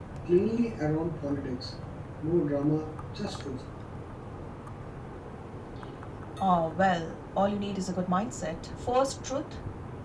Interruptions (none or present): none